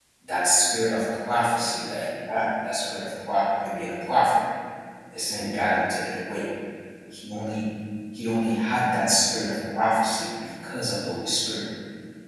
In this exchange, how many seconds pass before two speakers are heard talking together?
none

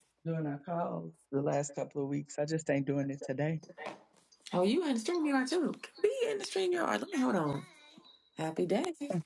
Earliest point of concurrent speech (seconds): none

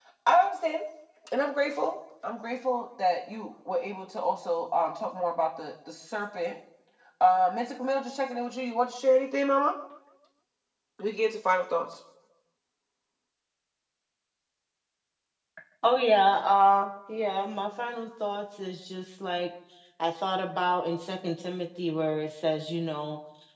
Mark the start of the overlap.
none

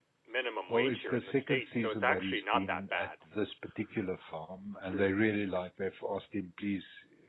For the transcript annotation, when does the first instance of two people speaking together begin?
0.7 s

